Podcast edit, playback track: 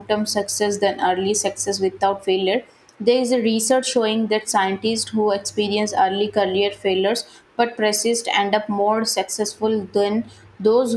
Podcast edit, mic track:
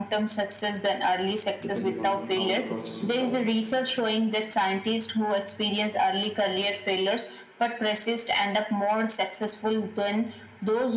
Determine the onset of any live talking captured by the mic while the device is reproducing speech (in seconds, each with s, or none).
1.6 s